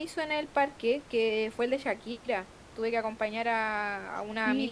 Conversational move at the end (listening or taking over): taking over